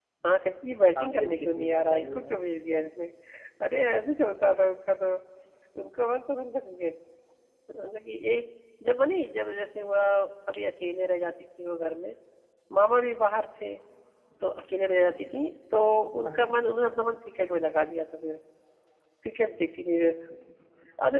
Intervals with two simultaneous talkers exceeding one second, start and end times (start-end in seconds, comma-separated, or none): 0.9-2.4